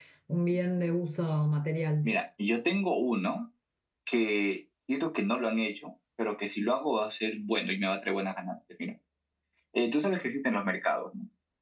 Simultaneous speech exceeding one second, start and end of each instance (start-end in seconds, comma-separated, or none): none